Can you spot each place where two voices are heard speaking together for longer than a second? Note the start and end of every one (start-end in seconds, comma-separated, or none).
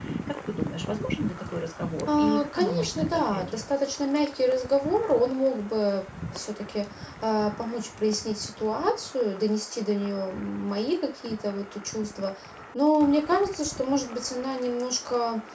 2.1-3.6